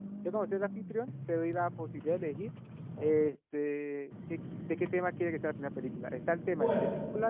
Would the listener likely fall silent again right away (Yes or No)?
Yes